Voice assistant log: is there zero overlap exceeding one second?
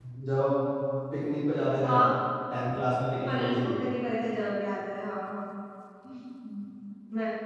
Yes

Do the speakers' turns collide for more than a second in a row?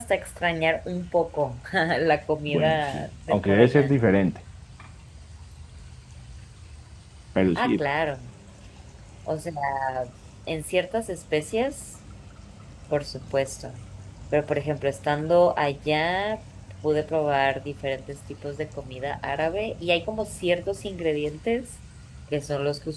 Yes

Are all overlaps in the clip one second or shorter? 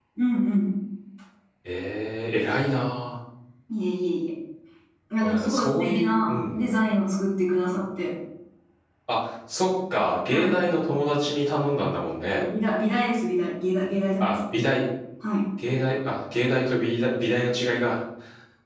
No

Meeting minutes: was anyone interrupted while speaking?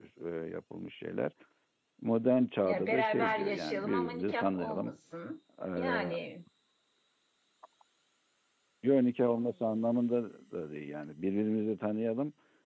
Yes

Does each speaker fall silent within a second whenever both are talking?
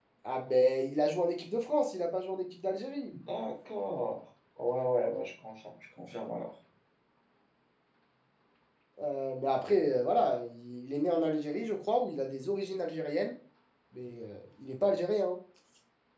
Yes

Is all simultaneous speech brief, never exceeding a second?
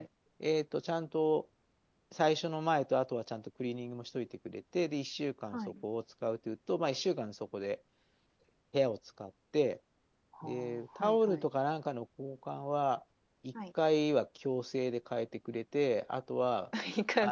Yes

